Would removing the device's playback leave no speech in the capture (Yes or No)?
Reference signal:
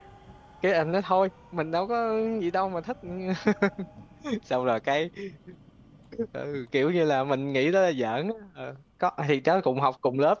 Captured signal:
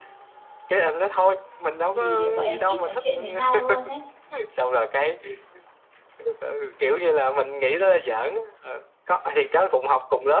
No